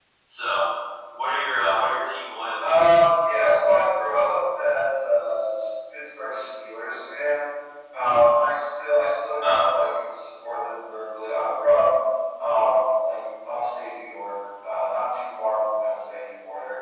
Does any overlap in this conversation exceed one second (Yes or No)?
No